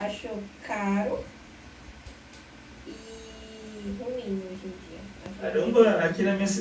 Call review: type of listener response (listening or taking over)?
taking over